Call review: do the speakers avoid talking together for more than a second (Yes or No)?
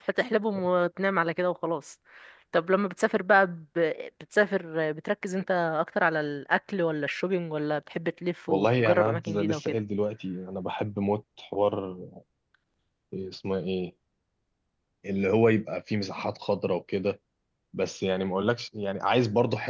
No